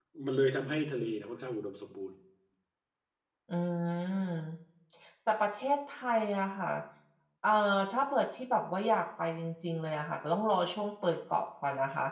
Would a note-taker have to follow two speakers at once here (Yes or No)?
No